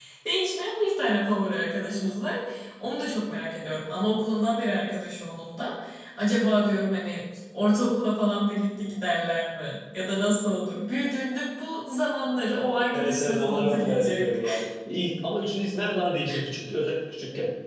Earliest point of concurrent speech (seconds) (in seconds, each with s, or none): 12.9 s